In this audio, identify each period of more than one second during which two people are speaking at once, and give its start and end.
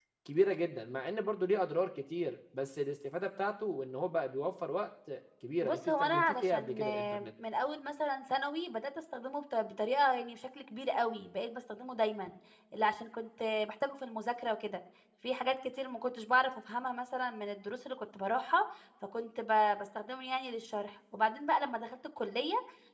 5.6-7.3

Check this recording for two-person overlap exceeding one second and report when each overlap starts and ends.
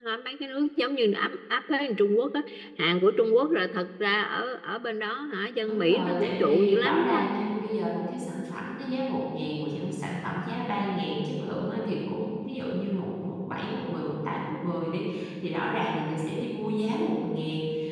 5.7-7.2

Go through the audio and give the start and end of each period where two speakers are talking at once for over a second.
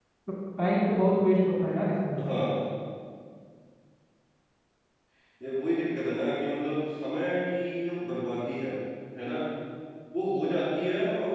none

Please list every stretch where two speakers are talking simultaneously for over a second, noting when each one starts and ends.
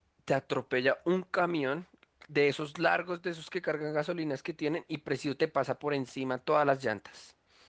none

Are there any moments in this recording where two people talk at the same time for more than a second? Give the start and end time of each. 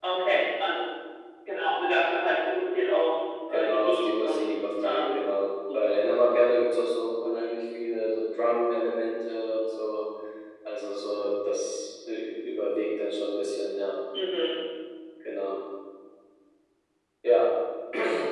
3.5-5.3

